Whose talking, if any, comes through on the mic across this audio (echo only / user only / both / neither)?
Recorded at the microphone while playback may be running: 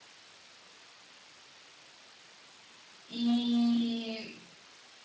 user only